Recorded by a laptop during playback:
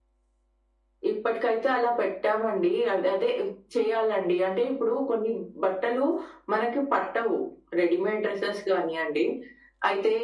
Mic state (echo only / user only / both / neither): echo only